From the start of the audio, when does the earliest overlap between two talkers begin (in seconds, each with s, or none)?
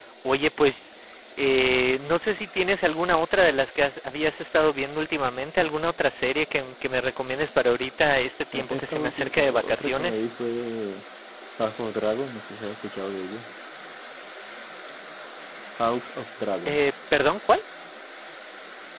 8.5 s